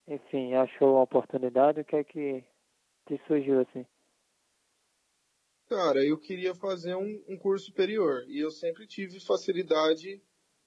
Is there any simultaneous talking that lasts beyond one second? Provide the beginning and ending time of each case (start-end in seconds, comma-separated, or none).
none